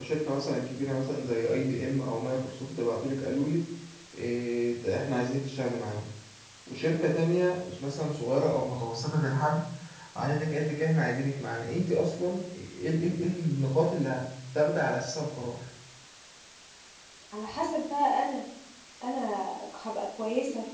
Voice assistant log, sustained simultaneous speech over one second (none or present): none